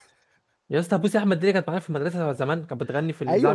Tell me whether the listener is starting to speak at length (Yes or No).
Yes